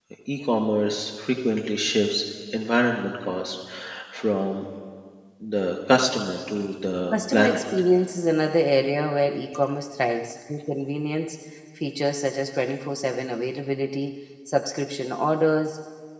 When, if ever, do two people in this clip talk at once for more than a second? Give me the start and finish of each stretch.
none

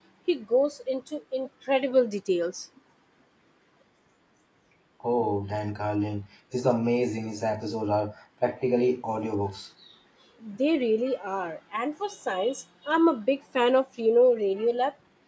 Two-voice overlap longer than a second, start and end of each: none

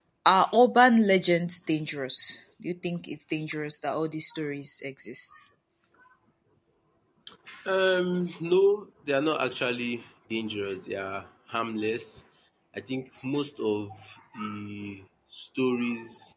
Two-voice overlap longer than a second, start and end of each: none

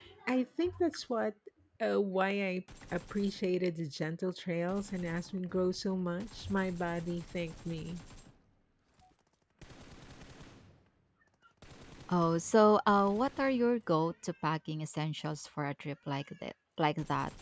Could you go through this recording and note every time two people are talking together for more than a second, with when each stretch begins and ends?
none

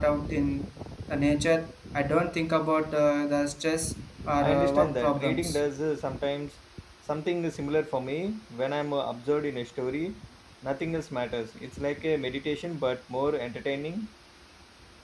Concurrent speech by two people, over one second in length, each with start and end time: 4.4-5.6

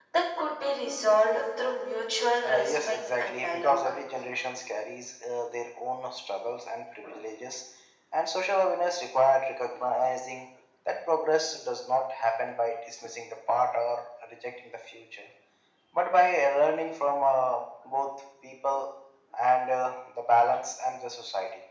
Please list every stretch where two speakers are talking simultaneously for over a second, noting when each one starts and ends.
2.4-3.8

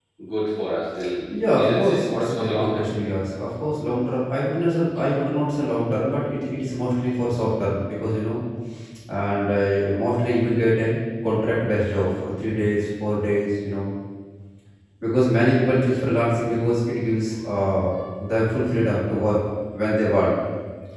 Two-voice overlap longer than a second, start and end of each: 1.6-2.9

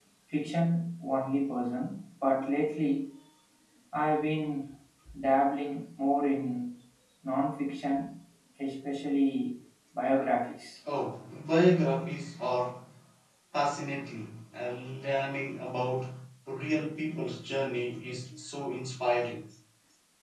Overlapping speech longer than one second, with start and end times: none

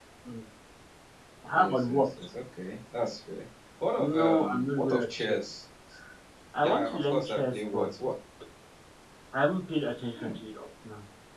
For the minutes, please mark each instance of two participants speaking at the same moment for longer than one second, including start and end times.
4.2-5.4, 6.6-7.9

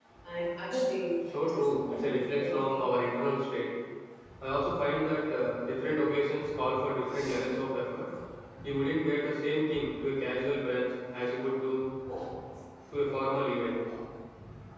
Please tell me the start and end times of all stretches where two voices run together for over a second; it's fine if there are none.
1.3-2.8

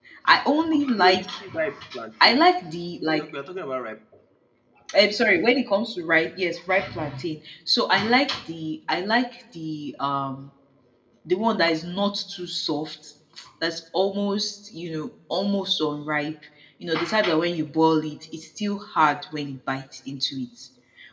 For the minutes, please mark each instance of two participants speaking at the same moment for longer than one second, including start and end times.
none

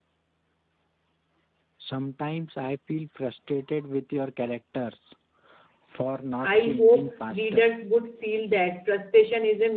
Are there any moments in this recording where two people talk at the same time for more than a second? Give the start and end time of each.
6.4-7.7

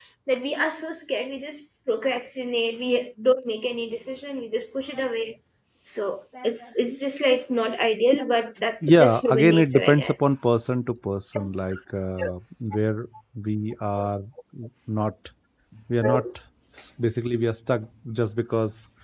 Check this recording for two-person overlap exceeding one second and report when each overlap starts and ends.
8.8-10.1

